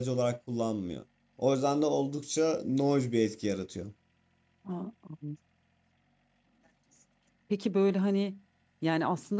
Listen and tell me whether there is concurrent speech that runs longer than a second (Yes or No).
No